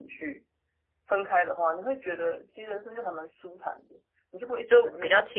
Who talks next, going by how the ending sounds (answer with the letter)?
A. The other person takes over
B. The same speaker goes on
A